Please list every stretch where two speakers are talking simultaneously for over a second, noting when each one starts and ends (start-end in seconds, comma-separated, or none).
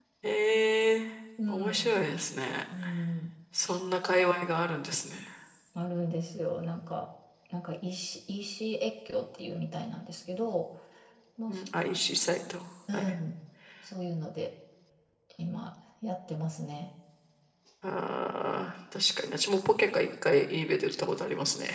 none